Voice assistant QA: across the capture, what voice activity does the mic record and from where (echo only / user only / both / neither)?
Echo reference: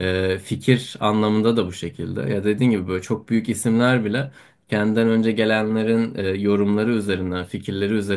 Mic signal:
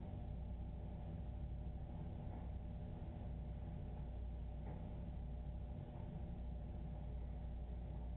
neither